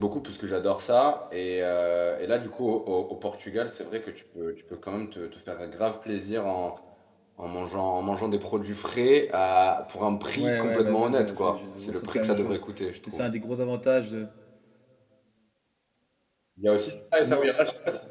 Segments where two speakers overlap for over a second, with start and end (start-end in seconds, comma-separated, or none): 10.3-12.6